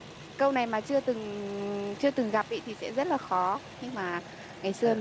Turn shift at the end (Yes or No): No